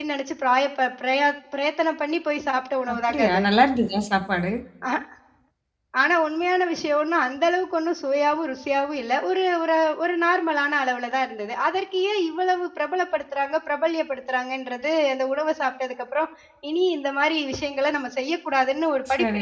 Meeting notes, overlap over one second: none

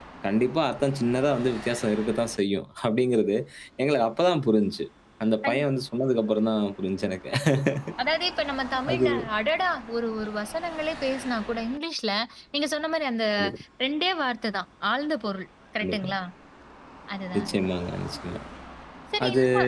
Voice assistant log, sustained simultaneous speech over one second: none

